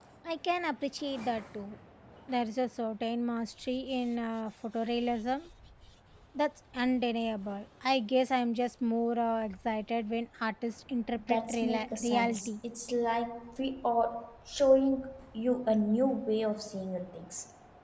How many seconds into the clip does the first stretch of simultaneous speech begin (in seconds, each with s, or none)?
11.2 s